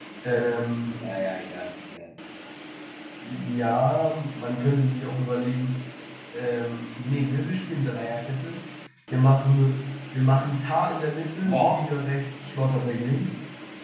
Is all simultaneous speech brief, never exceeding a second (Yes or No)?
Yes